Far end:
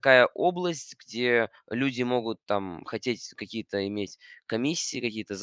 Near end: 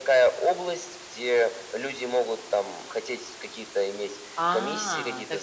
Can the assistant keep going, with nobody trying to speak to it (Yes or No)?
No